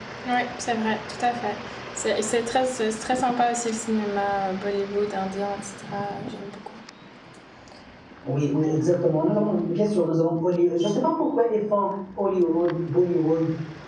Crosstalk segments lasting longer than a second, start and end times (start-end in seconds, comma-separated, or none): none